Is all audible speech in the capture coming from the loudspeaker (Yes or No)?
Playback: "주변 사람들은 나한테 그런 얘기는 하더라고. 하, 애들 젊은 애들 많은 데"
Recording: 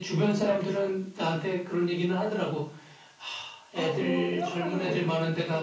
No